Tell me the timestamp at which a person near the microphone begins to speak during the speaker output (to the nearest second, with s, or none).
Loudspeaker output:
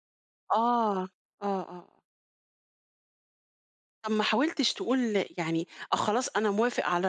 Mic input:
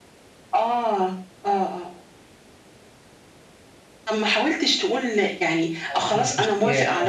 6 s